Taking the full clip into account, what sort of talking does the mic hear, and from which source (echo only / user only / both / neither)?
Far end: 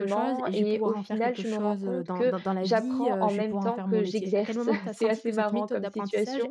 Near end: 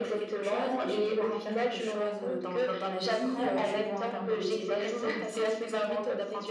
echo only